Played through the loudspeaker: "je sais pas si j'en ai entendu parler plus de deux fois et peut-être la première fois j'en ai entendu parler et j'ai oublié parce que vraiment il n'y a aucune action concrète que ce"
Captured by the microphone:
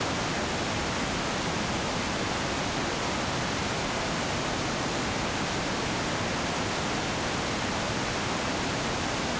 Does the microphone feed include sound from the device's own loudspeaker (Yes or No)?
No